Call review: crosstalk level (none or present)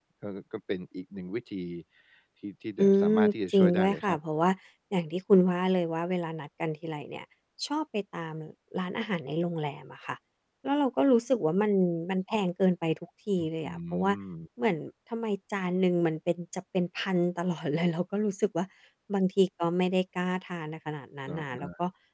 present